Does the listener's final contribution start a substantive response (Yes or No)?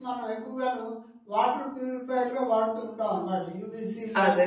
Yes